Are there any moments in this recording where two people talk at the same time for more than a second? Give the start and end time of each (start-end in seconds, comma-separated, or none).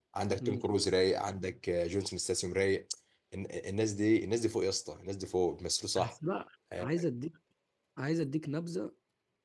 none